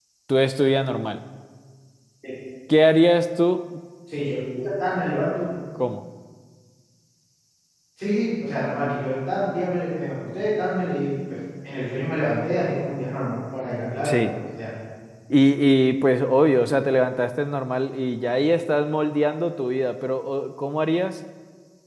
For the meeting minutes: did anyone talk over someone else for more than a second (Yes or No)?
No